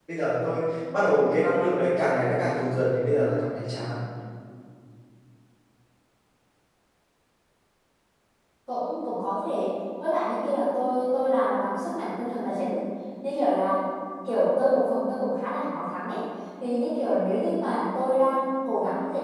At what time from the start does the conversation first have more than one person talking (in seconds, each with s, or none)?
none